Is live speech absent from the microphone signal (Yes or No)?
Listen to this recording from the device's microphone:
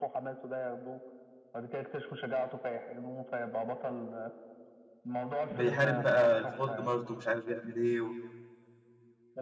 No